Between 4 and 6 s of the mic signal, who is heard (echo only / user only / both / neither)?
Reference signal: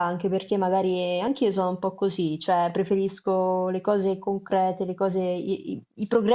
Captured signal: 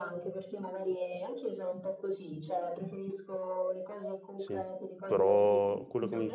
both